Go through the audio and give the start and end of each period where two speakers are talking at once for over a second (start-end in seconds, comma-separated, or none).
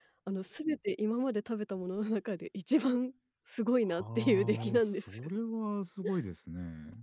3.8-5.2